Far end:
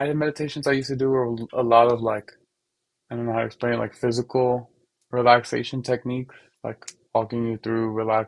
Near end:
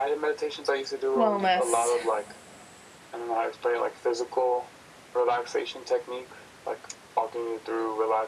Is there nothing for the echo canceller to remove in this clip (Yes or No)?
No